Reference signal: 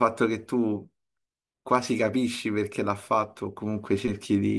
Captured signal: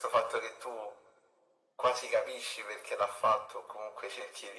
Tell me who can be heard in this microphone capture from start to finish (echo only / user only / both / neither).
echo only